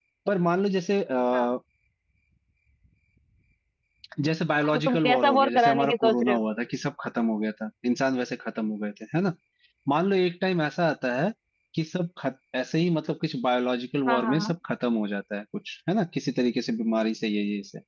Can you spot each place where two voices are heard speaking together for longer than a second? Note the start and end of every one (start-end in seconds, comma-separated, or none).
4.7-6.4